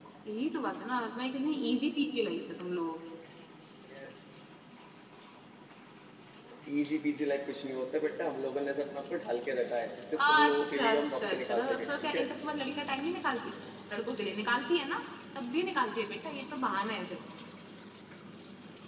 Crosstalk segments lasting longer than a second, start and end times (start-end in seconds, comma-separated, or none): 10.3-12.3